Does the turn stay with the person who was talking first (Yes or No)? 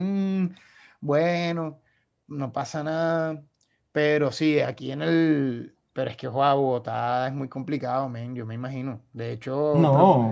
Yes